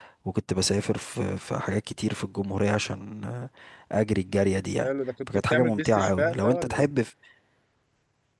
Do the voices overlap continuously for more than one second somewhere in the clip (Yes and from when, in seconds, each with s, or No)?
Yes, from 5.5 s